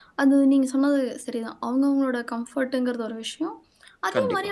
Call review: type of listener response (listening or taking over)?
listening